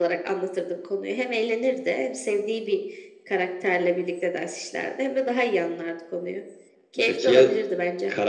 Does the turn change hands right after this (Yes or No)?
Yes